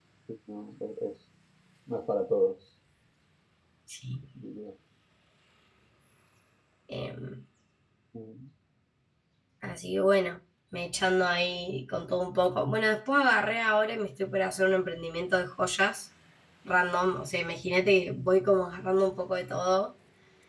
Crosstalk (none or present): none